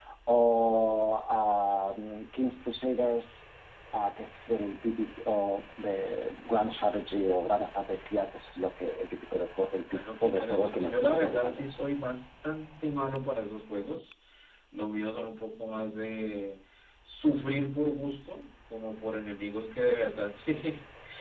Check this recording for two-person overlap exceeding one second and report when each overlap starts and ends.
9.9-11.9

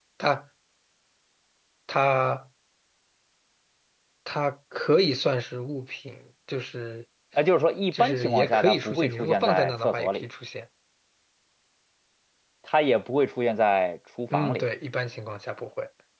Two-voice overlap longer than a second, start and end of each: 7.9-10.2

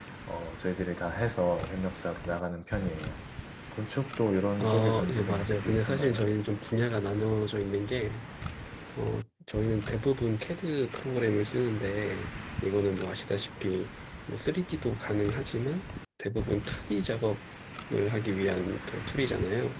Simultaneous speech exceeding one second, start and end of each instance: 4.6-6.2

